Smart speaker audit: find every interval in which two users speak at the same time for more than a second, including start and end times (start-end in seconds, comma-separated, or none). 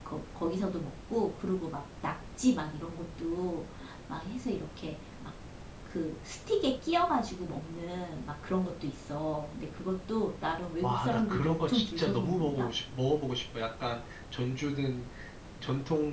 10.8-12.7